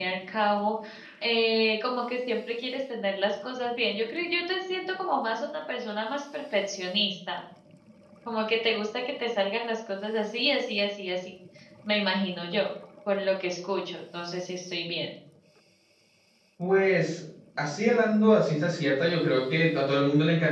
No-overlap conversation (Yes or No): Yes